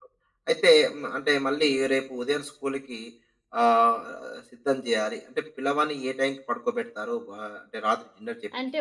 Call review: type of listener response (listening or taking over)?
taking over